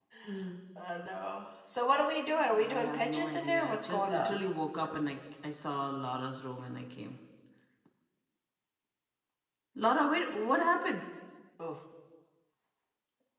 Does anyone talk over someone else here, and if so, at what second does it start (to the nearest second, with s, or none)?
3 s